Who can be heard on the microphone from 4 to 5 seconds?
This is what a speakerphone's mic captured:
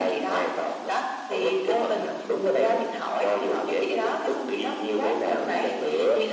echo only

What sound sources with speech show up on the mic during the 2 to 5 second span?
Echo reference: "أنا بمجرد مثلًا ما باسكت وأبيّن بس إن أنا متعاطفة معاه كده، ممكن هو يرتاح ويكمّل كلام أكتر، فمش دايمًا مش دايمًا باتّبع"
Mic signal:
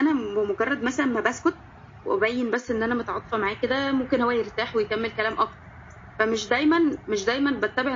echo only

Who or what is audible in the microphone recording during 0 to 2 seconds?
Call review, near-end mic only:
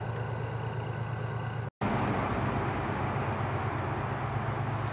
neither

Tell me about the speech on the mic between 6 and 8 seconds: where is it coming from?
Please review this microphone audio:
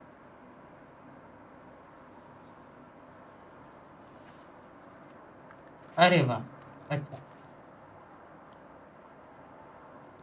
user only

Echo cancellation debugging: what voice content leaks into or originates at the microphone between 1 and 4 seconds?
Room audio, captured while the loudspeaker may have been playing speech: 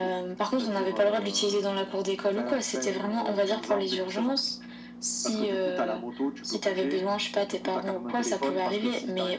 echo only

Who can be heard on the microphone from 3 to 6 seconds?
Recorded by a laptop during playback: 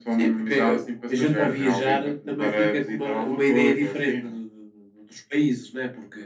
echo only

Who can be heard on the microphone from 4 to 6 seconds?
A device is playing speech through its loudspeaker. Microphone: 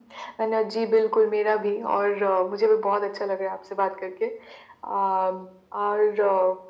echo only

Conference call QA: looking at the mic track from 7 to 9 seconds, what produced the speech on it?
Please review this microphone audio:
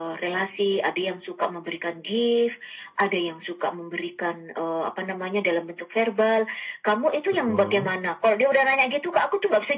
both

